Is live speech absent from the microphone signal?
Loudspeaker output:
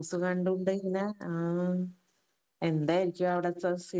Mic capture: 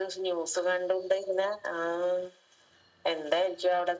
Yes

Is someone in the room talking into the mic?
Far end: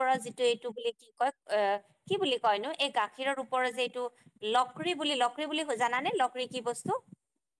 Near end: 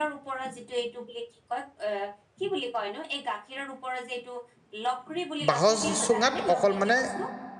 Yes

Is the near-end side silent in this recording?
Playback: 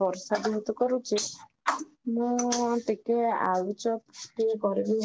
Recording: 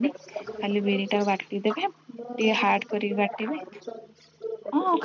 No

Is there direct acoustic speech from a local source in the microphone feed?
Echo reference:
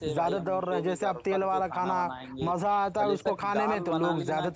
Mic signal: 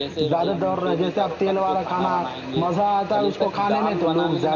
No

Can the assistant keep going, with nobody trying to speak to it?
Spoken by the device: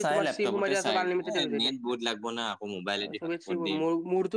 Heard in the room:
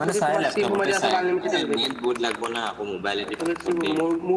Yes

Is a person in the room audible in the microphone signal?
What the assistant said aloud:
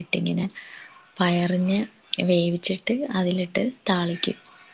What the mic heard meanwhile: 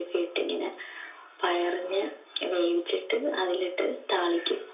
No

